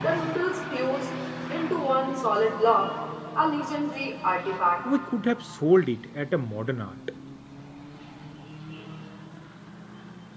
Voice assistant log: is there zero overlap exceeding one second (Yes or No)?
Yes